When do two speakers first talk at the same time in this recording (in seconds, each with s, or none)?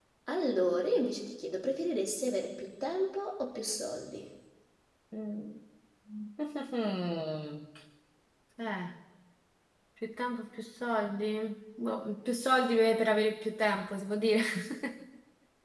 none